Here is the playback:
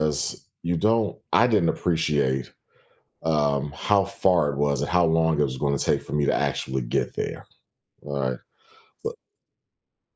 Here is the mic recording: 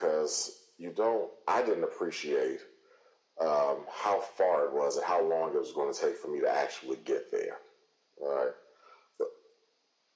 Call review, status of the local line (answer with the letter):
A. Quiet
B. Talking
A